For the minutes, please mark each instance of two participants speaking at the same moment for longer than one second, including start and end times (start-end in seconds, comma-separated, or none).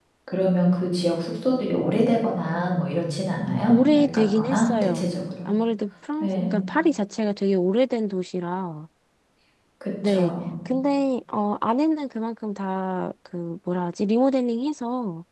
3.7-5.0